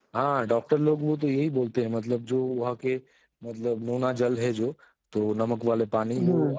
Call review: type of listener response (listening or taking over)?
listening